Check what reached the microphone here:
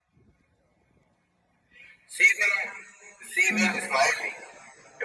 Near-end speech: present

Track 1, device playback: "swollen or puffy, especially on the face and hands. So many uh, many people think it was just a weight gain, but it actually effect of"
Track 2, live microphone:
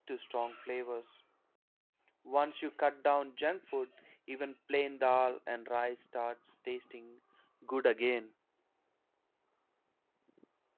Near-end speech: present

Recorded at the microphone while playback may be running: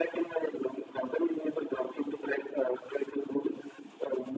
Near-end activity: none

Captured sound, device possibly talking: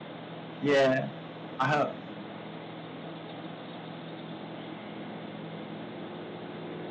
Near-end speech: present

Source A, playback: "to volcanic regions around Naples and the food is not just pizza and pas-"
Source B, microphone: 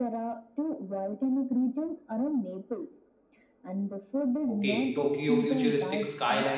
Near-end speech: present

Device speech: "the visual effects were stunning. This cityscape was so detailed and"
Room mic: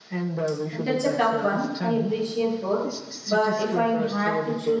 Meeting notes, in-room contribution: present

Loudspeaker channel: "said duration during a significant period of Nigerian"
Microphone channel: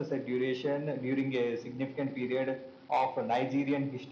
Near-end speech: none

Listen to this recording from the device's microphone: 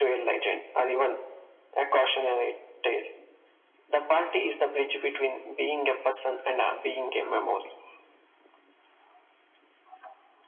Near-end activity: none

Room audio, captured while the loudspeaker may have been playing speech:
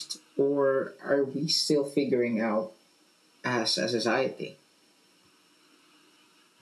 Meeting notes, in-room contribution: none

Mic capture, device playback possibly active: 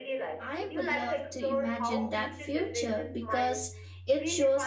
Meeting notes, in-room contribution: present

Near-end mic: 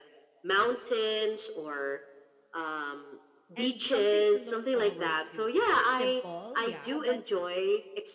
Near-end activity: present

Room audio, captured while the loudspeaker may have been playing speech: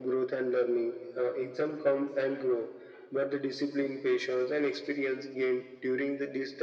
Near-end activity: none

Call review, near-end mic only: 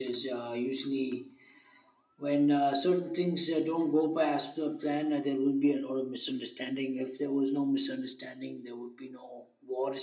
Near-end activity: none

